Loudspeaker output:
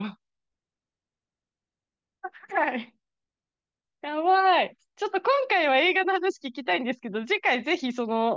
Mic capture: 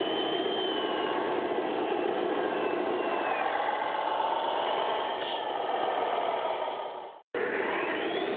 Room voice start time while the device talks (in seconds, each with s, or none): none